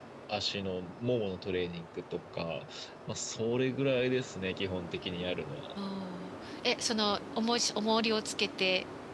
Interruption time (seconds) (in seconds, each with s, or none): none